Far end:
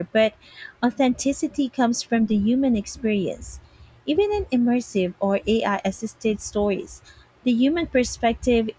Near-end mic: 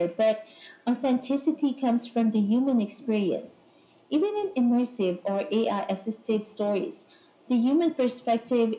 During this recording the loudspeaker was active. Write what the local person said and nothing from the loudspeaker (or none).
none